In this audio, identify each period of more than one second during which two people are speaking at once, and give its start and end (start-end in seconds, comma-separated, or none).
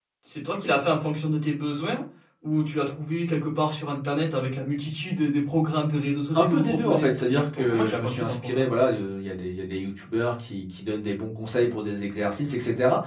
6.4-8.7